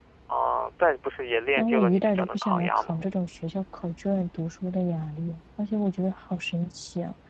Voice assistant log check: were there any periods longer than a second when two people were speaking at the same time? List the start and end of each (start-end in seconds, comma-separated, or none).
1.6-3.0